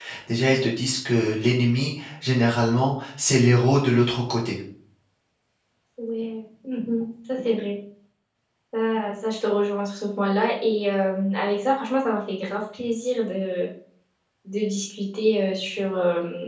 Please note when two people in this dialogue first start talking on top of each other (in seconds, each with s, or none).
none